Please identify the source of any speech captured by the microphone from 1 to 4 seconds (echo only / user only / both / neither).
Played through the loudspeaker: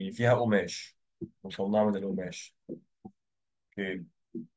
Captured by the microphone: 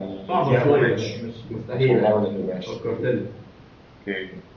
both